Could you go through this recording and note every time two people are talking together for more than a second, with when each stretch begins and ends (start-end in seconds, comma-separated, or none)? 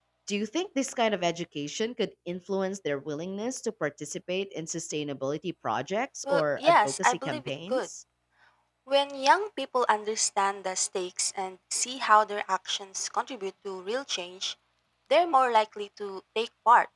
6.3-7.9